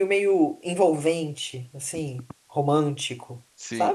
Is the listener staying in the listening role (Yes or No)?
No